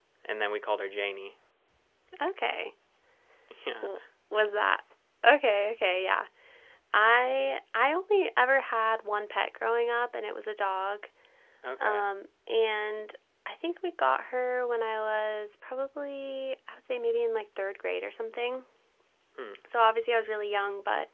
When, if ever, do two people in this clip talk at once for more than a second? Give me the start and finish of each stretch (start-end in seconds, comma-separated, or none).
none